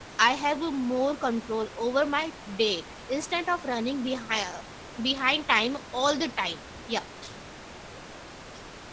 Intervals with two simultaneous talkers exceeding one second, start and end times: none

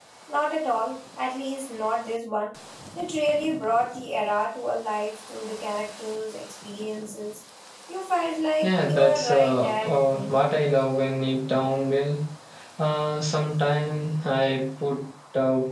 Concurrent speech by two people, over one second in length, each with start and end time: 8.6-10.4

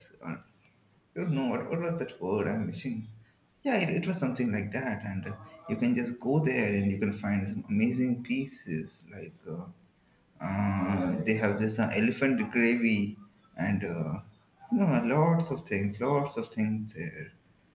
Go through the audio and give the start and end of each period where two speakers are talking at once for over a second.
none

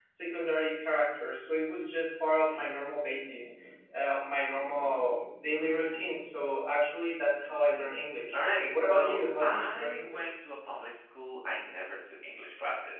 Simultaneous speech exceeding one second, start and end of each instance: 8.3-10.3

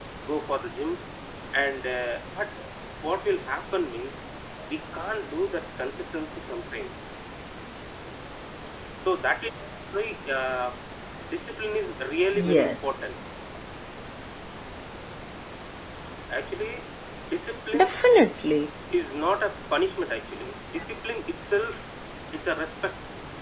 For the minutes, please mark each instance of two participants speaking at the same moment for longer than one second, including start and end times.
none

